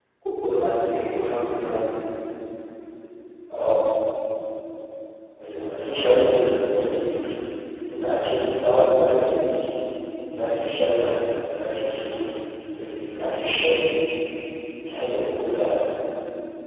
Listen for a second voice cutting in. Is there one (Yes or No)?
No